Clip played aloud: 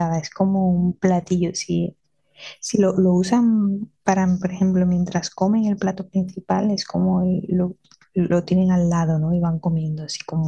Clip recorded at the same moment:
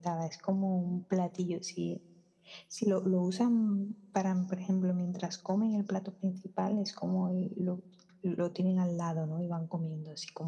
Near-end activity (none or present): none